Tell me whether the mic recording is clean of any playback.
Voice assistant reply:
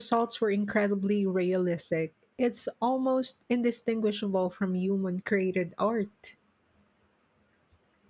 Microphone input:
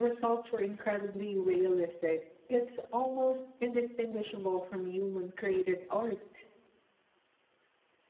No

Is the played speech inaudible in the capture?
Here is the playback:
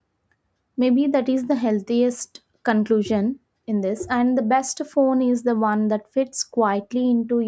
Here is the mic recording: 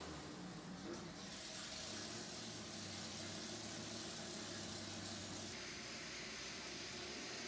Yes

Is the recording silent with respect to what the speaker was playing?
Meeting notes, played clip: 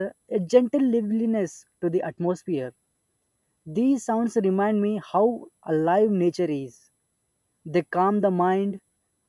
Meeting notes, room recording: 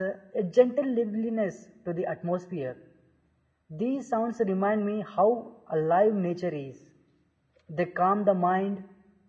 No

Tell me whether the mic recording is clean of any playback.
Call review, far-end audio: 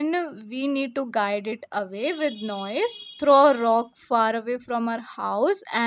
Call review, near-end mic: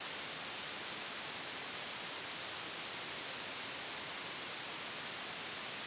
Yes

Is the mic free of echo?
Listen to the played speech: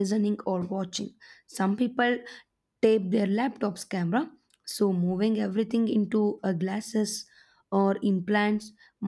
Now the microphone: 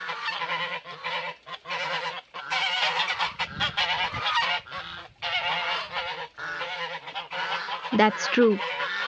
Yes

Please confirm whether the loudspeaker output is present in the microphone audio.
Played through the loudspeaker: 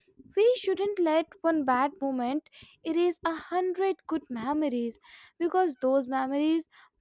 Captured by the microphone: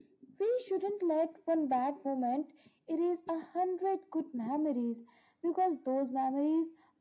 Yes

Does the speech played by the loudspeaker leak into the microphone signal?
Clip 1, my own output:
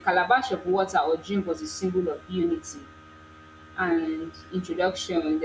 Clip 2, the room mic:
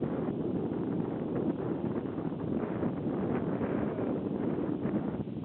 No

